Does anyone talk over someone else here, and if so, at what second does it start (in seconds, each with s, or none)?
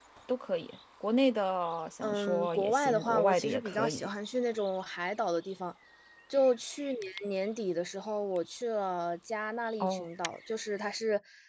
2.0 s